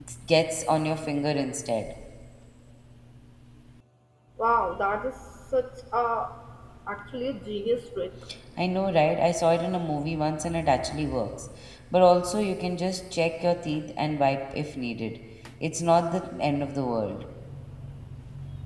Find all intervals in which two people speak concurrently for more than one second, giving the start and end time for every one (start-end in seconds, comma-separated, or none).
none